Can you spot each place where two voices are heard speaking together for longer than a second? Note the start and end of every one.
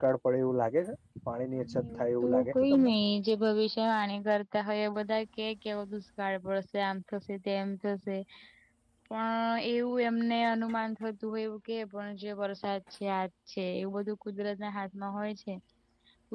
1.6-2.9

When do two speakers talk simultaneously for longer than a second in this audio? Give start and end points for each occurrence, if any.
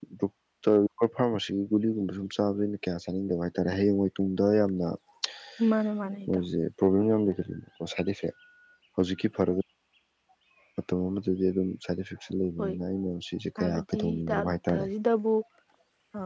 13.6-14.9

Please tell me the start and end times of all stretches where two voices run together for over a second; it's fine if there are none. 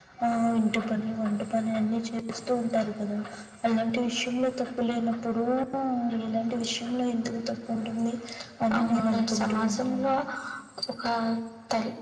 8.8-10.1

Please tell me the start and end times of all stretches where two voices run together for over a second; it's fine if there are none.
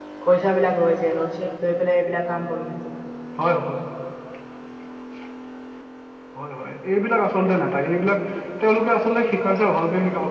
none

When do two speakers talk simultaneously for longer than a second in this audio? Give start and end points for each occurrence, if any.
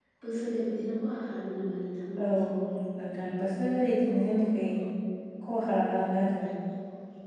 none

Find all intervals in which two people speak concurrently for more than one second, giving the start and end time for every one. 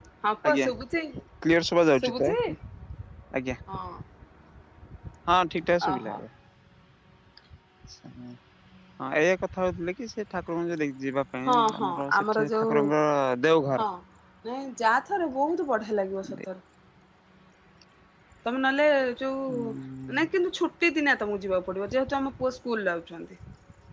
11.5-12.7

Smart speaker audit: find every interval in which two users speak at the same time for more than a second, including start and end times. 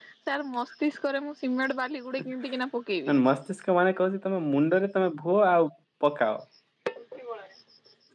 none

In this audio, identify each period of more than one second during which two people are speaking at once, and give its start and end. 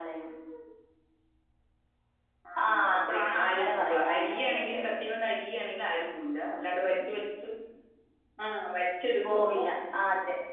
2.6-4.8

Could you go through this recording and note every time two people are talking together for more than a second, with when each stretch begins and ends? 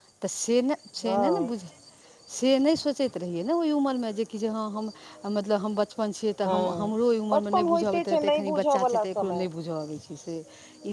7.3-9.5

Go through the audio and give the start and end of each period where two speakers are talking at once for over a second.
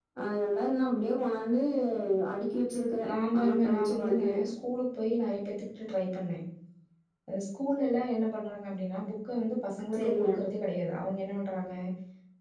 3.1-4.4

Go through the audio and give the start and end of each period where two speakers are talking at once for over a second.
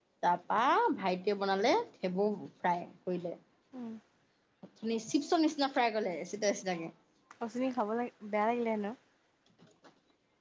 none

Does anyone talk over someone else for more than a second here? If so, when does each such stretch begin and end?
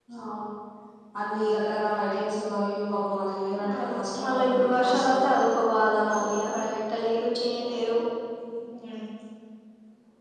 3.7-5.3

